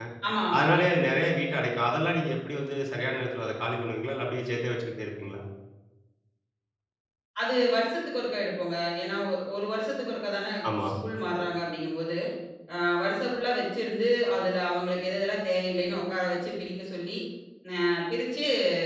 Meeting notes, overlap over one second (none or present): none